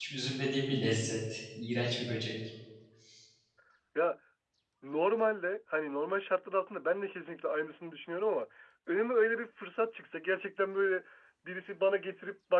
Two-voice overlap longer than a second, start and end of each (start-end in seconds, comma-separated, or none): none